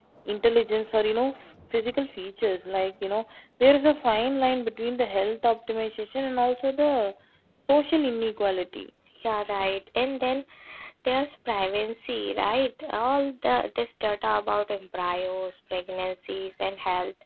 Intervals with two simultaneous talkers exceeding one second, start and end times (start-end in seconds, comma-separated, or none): none